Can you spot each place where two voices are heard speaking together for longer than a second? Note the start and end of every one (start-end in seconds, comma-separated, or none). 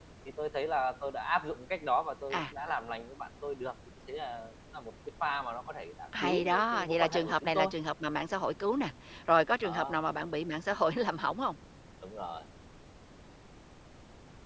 6.2-7.7